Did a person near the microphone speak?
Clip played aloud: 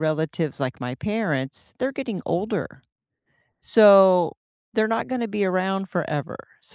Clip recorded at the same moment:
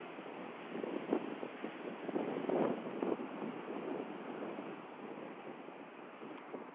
No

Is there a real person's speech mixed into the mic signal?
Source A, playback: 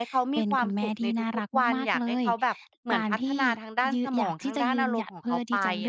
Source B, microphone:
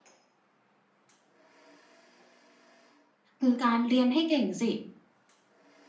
Yes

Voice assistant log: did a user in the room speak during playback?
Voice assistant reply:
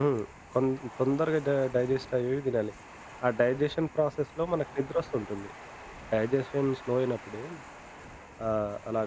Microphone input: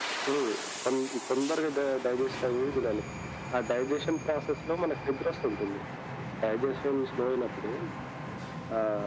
No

